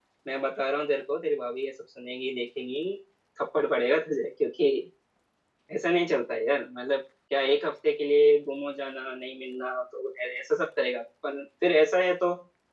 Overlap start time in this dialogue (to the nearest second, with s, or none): none